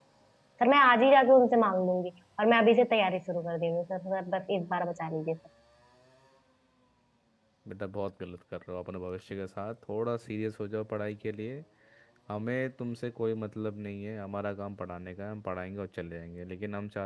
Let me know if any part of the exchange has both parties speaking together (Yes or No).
No